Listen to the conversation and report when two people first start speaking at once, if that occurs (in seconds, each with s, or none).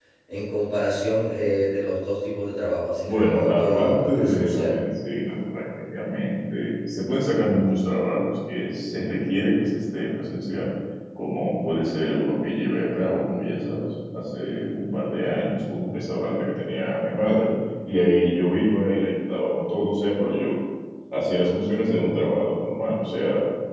3.0 s